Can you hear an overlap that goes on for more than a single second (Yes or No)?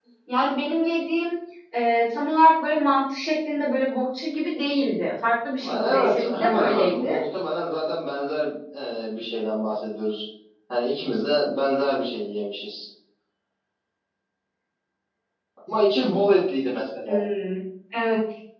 Yes